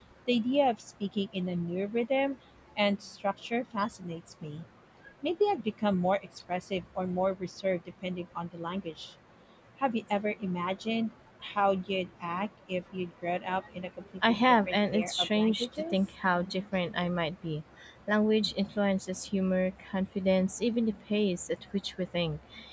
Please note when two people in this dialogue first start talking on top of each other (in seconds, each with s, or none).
14.2 s